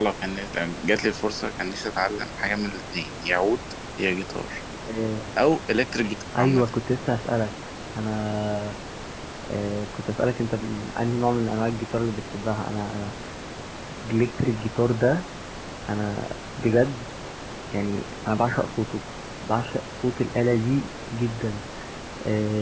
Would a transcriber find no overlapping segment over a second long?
Yes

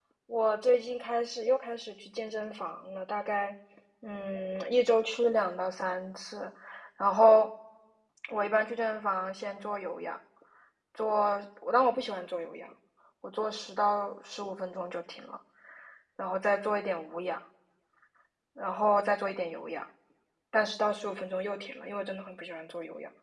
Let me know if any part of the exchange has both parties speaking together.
No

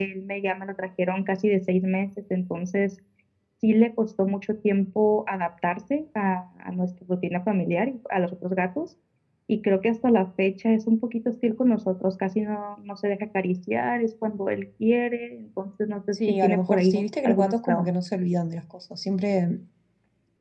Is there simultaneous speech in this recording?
Yes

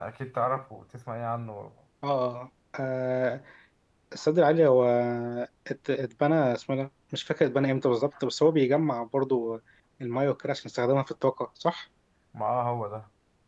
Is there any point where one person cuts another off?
No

